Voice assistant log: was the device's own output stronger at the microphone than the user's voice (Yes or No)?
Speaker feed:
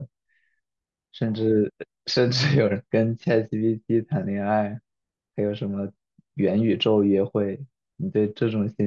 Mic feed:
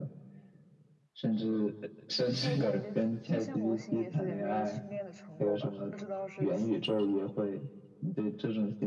Yes